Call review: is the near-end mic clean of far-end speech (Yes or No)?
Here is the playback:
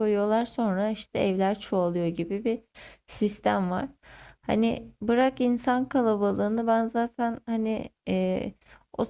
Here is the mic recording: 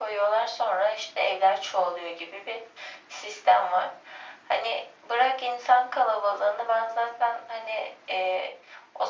No